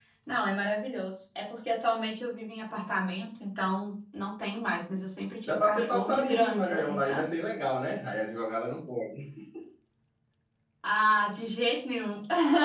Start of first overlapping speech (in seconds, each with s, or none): 5.5 s